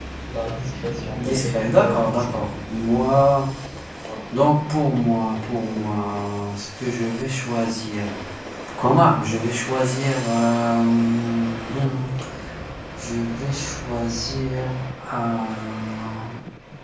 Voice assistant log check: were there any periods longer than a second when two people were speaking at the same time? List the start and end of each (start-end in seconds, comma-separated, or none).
1.1-2.5